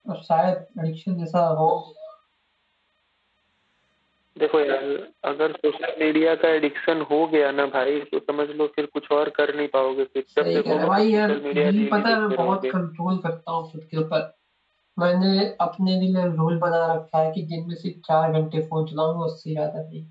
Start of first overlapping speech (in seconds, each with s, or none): 10.4 s